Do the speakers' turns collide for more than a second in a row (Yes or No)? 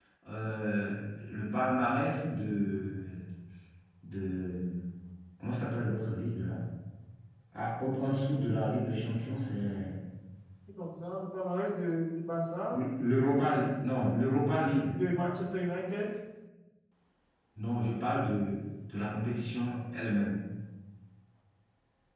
No